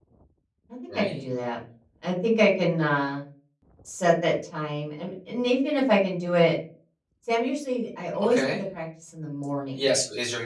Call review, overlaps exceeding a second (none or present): none